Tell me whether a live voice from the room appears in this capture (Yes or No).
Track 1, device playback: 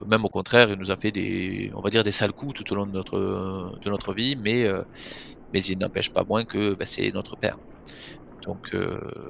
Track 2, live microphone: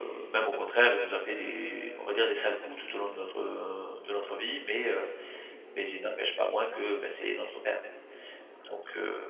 No